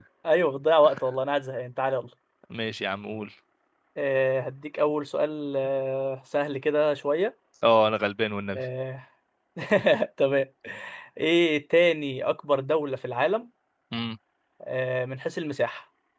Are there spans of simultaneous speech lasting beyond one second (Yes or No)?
No